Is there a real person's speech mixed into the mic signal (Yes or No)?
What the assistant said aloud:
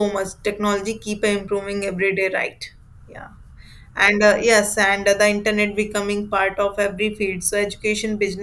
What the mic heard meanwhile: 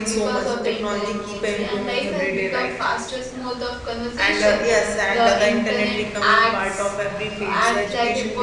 Yes